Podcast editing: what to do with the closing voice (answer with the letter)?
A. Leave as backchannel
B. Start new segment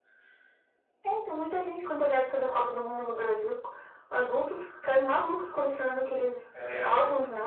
A